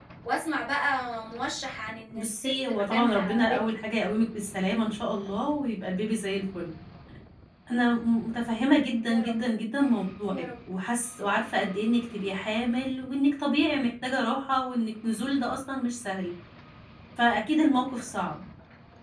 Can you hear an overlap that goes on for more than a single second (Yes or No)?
Yes